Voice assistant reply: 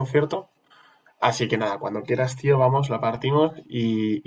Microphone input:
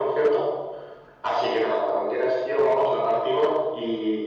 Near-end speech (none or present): none